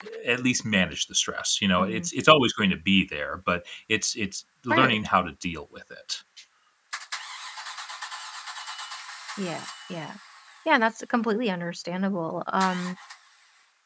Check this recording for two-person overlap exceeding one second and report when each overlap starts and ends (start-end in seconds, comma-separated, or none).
none